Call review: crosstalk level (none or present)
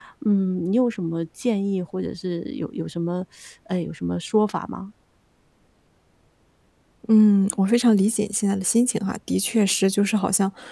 none